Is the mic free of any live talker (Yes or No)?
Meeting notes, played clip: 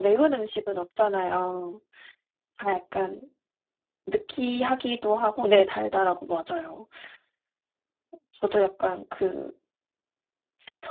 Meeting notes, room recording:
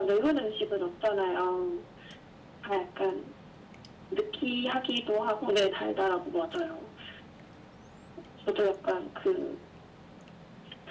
Yes